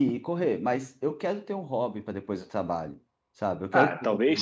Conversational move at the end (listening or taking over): taking over